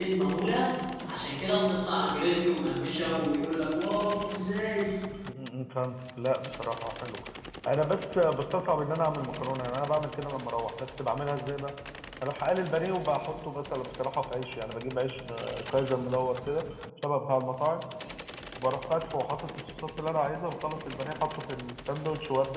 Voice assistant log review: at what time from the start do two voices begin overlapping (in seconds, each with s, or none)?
none